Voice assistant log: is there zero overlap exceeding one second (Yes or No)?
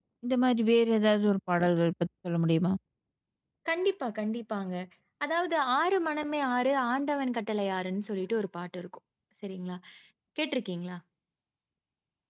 Yes